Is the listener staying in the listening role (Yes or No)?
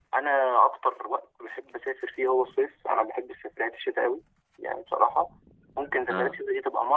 Yes